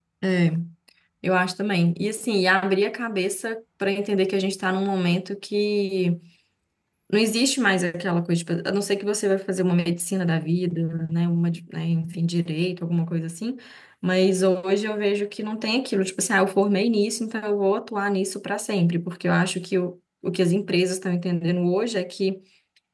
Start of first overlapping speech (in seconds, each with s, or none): none